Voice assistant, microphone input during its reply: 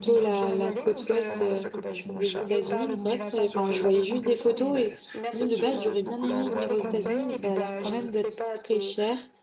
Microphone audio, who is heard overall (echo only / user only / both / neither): both